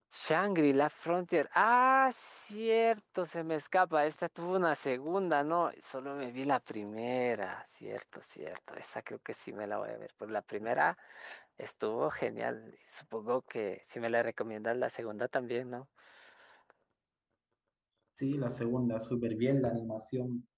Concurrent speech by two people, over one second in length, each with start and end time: none

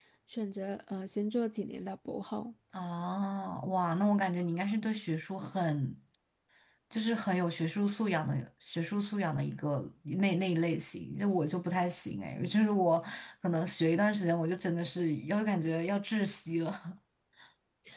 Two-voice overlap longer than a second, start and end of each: none

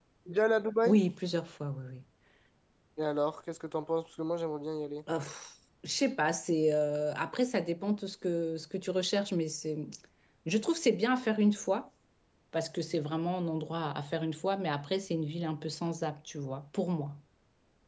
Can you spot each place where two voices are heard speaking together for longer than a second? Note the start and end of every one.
none

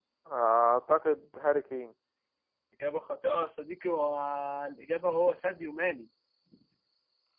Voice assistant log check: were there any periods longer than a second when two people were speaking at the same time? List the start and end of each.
none

